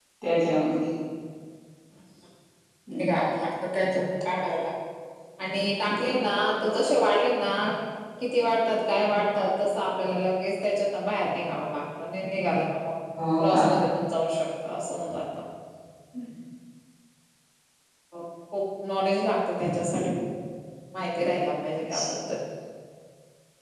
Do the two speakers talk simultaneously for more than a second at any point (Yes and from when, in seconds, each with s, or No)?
No